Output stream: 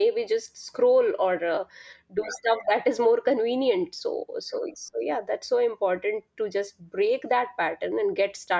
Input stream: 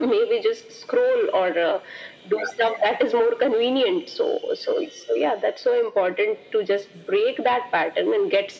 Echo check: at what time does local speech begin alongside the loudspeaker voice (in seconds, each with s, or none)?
none